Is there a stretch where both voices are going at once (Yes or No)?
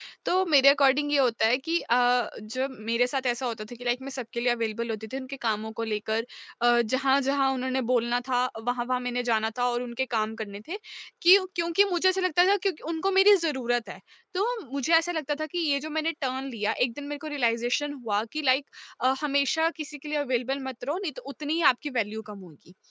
No